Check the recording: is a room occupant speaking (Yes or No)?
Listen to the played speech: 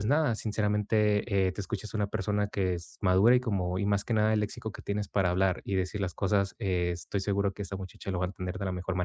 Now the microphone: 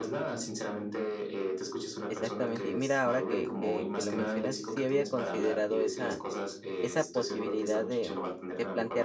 Yes